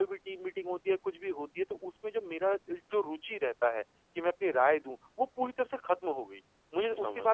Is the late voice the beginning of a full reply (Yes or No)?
No